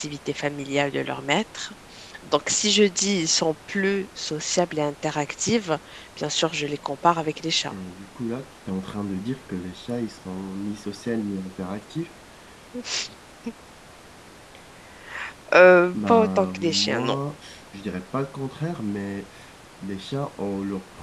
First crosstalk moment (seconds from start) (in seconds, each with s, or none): 15.9 s